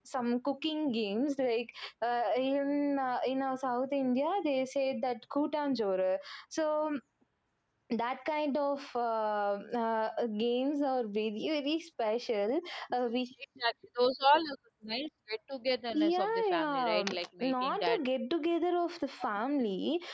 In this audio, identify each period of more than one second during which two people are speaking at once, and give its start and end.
15.9-18.0

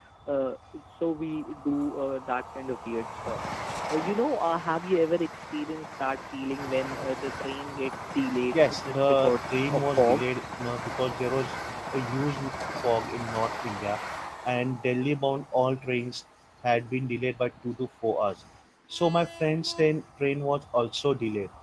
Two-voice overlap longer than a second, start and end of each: 8.5-10.2

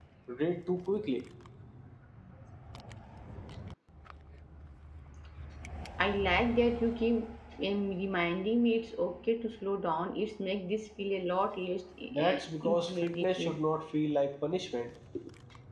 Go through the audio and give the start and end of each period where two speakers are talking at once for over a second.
12.1-13.6

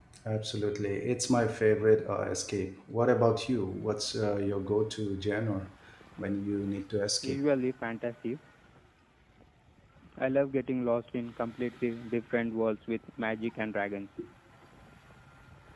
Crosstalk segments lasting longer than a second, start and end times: none

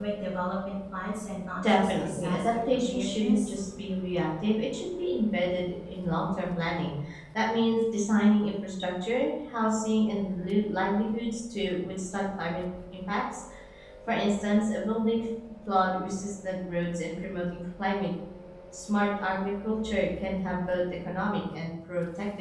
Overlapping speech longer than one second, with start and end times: 1.7-3.5

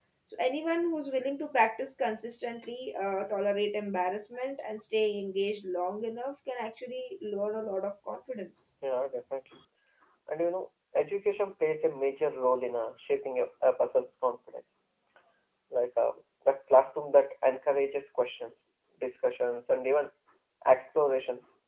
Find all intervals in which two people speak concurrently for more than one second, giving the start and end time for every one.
none

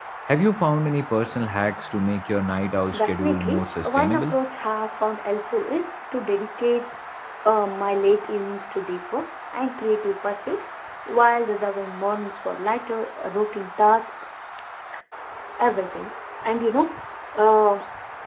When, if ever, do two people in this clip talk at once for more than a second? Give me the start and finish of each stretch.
2.9-4.3

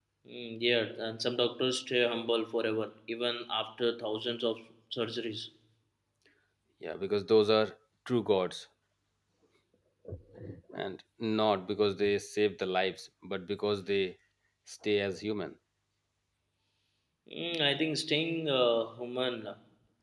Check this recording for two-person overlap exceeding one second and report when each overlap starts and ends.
none

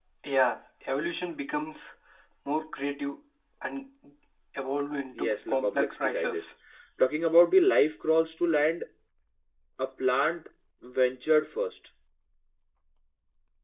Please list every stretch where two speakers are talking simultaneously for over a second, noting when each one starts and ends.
5.1-6.5

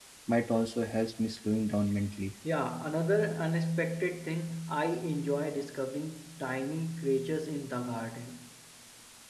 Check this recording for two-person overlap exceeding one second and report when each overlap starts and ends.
none

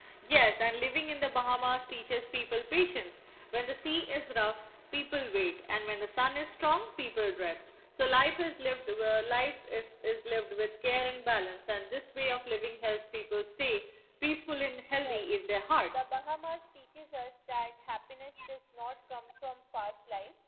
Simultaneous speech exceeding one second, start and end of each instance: none

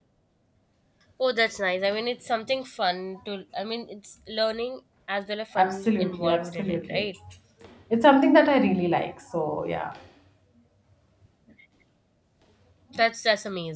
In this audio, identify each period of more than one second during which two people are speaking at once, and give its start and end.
5.6-7.1

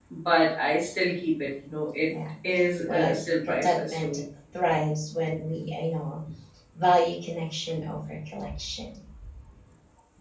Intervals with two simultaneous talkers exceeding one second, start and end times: 2.9-4.2

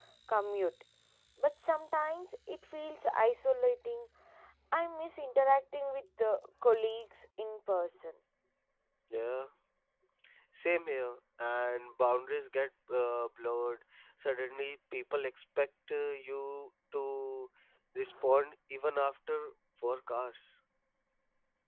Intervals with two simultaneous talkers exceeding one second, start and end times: none

